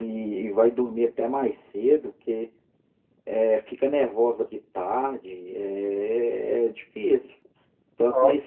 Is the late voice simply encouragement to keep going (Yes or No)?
Yes